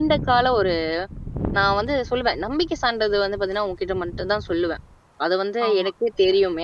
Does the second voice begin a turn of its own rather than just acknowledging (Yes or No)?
No